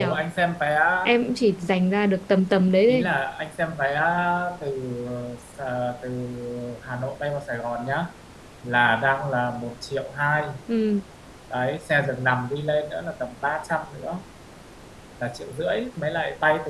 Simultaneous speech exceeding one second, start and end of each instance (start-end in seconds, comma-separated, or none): none